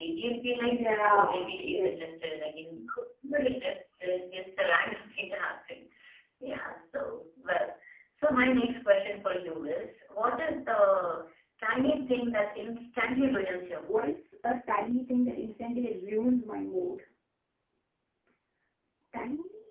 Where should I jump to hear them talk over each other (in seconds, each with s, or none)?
0.7 s